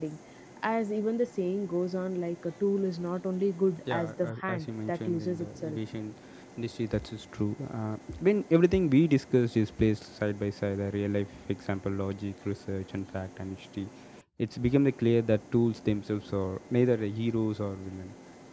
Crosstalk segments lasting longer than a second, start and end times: 3.9-5.8

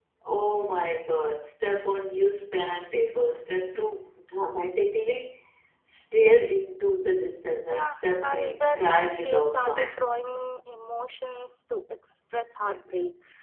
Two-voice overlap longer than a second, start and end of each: 7.7-9.8

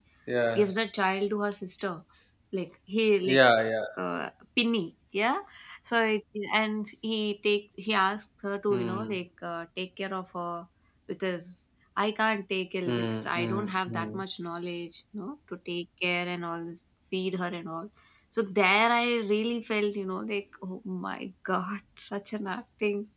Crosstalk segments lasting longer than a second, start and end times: 12.9-14.2

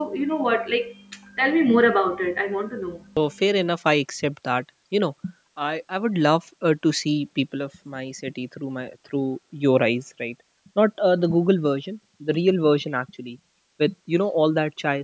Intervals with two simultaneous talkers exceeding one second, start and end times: none

